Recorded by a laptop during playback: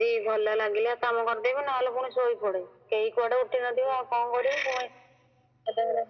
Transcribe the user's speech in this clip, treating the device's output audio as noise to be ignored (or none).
none